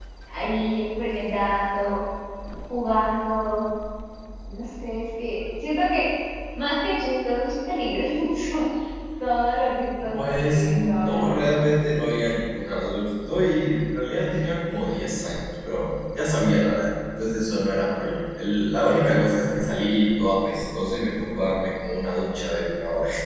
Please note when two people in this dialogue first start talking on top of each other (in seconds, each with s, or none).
10.0 s